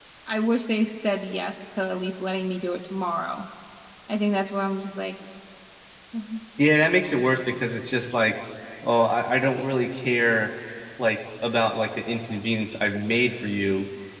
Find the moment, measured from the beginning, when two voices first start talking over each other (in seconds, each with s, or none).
none